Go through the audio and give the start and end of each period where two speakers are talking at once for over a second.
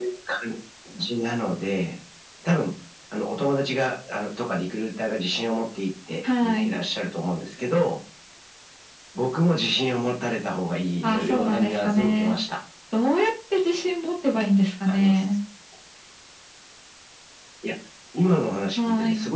11.0-12.4

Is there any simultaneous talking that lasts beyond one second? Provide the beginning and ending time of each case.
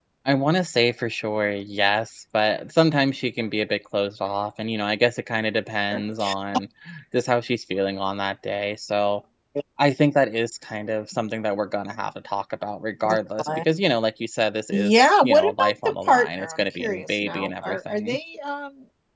14.7-18.2

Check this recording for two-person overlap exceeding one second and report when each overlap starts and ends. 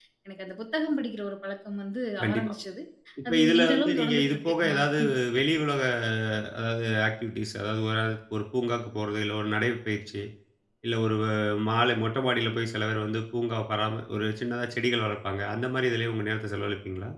3.3-5.0

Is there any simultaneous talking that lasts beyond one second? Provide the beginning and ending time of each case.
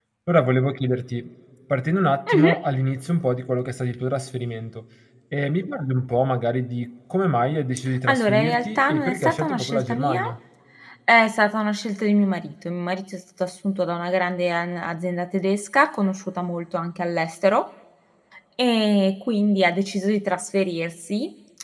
8.1-10.2

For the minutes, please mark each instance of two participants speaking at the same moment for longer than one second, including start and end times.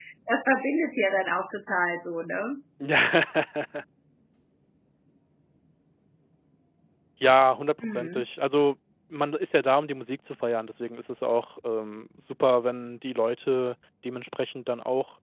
none

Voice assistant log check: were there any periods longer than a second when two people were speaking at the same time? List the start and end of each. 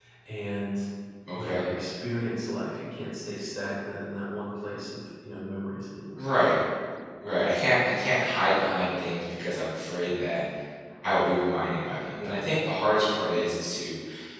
none

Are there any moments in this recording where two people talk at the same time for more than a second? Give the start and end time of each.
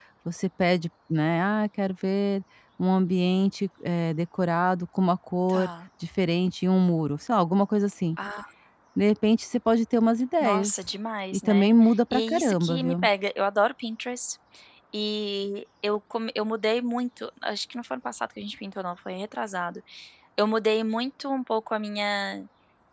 11.3-13.0

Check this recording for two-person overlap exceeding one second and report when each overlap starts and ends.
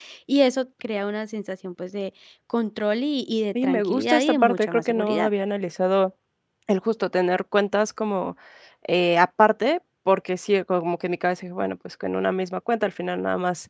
3.6-5.3

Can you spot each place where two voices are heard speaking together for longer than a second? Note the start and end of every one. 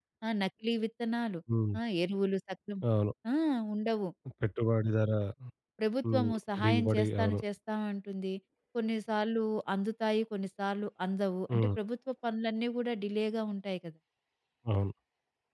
6.1-7.4

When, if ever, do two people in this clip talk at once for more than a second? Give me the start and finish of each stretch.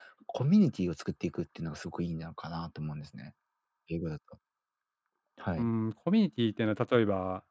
none

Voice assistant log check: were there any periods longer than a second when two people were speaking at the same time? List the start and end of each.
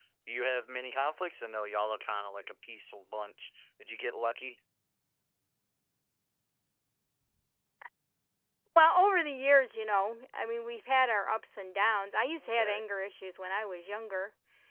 none

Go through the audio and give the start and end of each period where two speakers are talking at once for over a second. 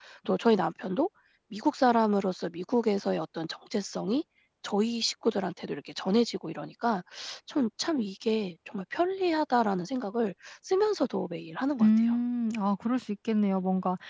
none

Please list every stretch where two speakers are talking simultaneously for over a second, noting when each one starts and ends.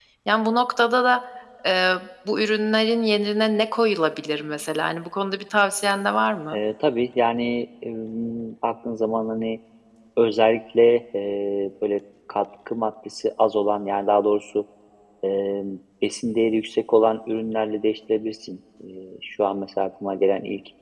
none

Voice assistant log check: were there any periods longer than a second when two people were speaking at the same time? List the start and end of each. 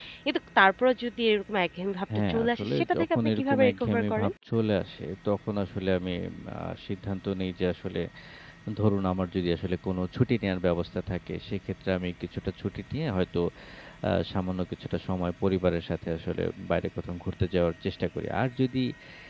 2.3-4.3

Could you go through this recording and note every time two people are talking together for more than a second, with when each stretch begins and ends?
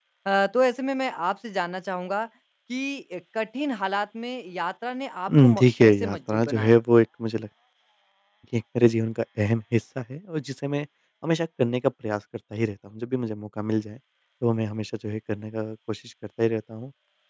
5.3-6.7

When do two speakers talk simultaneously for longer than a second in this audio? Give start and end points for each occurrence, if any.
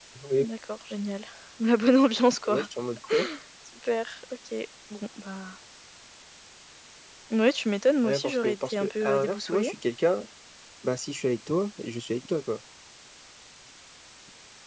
8.0-9.7

